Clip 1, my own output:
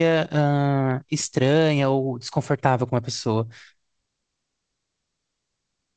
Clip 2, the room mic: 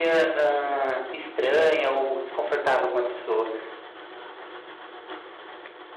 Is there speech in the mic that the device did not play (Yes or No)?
No